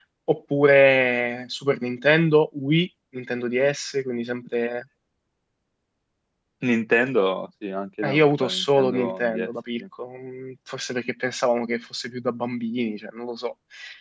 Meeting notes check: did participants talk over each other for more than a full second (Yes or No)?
Yes